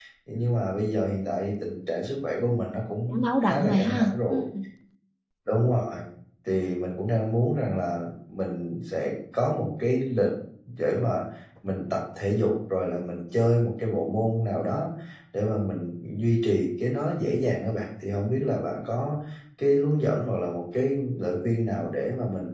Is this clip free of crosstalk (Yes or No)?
No